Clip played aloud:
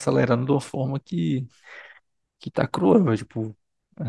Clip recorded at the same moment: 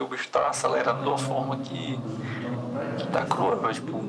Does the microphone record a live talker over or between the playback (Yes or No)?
Yes